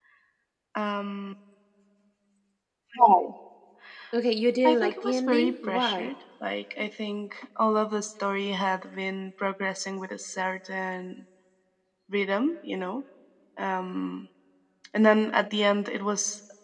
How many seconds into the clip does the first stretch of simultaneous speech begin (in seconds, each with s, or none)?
4.6 s